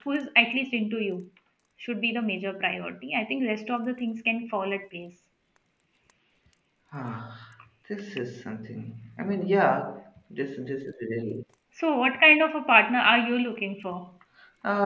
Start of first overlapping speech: none

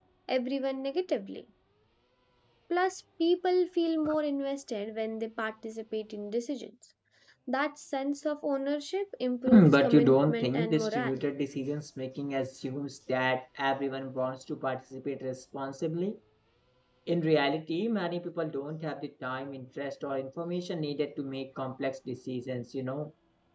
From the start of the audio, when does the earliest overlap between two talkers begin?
9 s

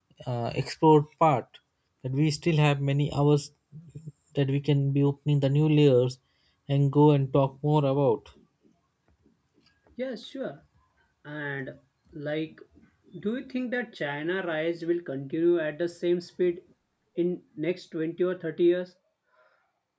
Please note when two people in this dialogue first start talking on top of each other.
none

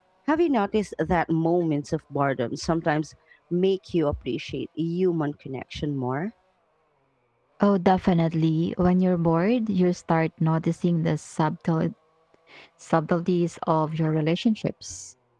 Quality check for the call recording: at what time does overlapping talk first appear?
none

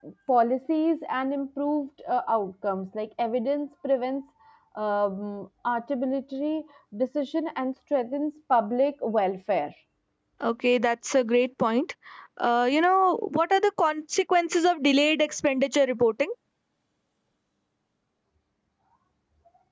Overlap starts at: none

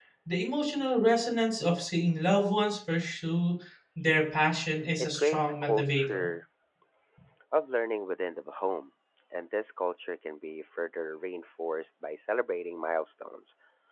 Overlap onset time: 5 s

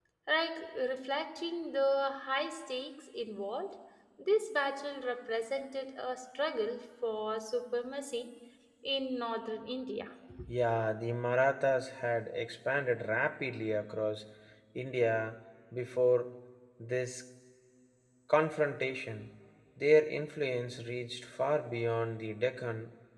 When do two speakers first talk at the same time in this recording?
none

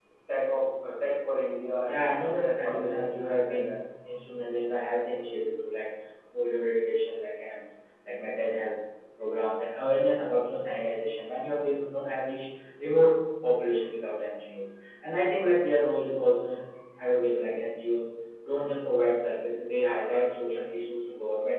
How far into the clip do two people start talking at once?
2 s

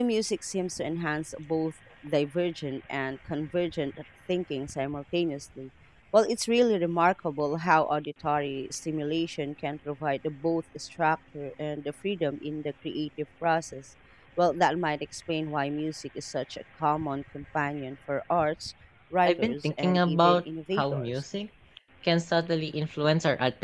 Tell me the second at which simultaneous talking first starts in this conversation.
19 s

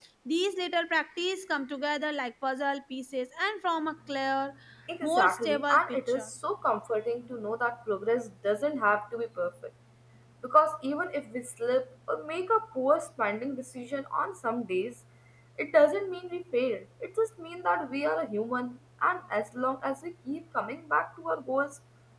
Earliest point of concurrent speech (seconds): 5 s

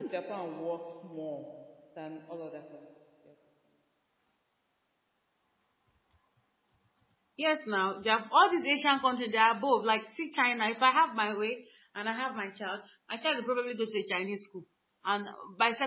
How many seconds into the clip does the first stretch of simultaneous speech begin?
none

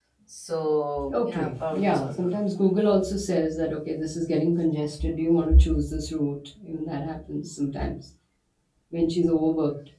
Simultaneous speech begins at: 1 s

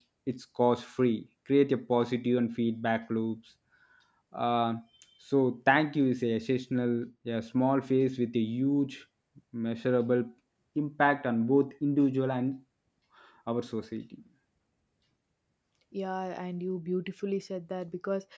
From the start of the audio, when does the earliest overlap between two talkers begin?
none

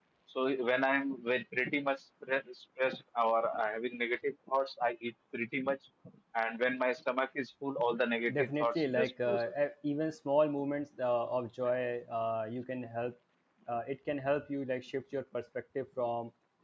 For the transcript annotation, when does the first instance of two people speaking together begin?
8 s

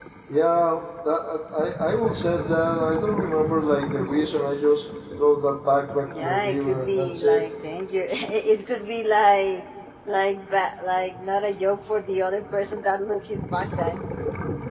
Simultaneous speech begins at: 6 s

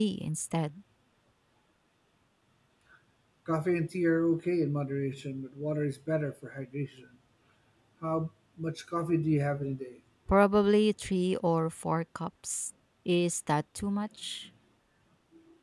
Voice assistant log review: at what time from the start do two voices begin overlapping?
none

